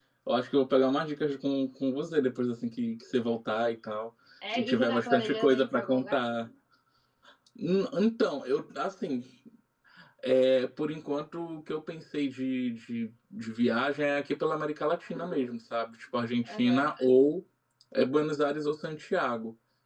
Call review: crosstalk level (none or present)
present